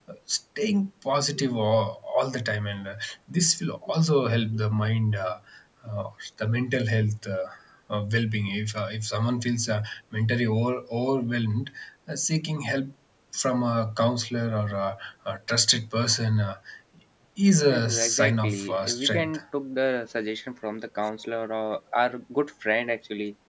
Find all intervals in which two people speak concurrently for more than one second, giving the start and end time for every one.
17.7-19.4

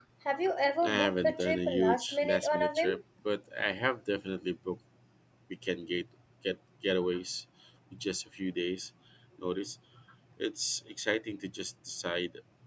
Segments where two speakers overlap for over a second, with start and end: 0.8-2.9

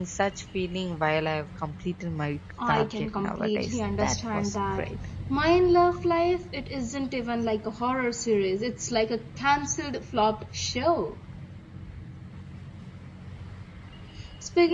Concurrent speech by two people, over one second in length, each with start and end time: 2.7-4.9

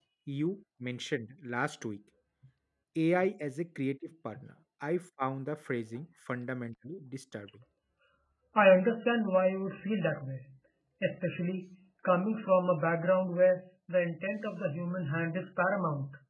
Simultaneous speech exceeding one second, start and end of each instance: none

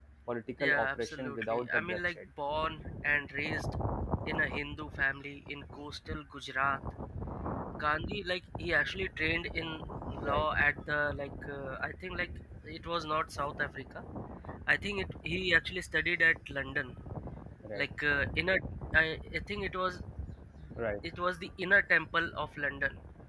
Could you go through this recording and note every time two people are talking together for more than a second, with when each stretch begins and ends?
0.6-2.2

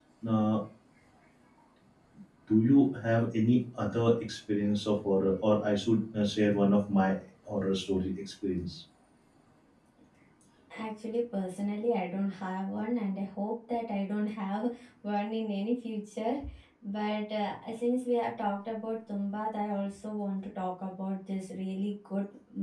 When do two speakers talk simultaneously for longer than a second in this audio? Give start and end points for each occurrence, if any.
none

